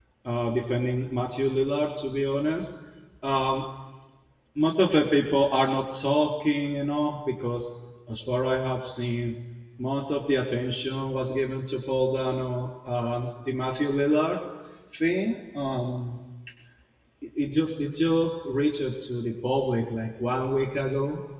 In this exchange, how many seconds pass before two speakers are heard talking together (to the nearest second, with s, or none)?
none